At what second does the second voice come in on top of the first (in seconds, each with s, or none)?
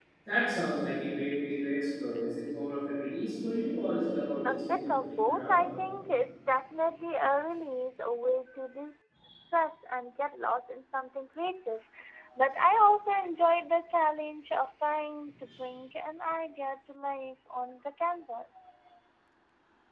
4.4 s